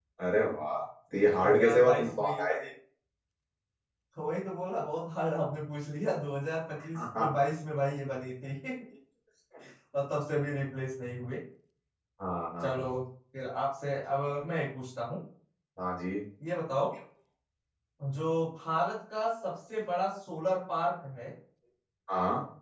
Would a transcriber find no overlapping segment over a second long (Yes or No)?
No